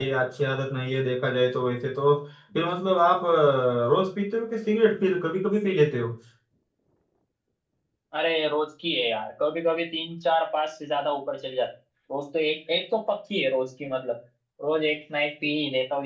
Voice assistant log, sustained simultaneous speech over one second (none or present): none